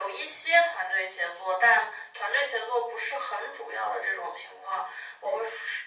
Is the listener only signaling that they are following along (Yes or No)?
Yes